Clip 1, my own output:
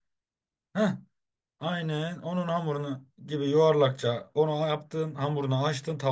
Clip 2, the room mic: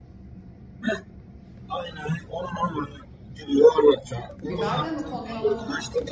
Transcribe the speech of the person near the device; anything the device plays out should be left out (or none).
Biber de mi konuyor la ona?